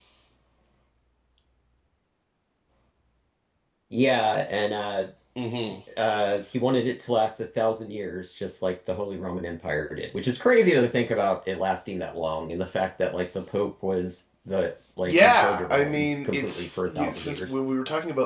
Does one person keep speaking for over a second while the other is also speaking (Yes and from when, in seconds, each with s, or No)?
Yes, from 15.1 s